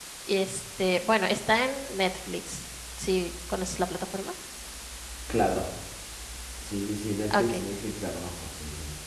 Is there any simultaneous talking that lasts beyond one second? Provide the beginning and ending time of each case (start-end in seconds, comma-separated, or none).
none